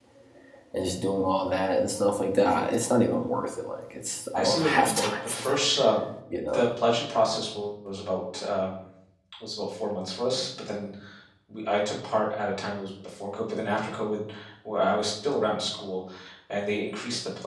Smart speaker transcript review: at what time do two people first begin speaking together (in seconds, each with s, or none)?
4.4 s